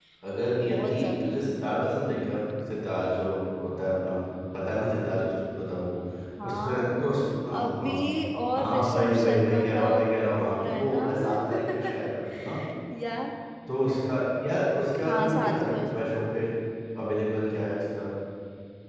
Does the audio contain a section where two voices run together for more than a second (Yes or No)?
Yes